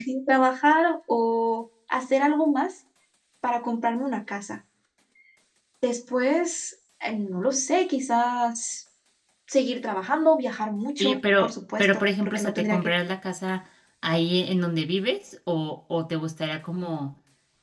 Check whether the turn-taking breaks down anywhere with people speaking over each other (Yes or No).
Yes